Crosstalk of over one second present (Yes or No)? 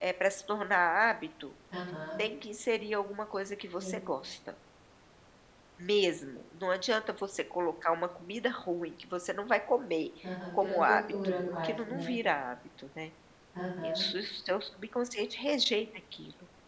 Yes